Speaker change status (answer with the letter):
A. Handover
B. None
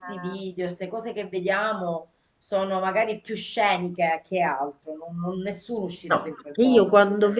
A